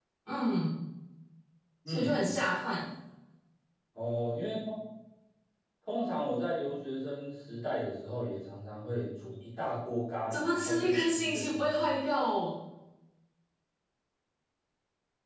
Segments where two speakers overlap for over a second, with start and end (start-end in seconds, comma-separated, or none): 10.3-11.7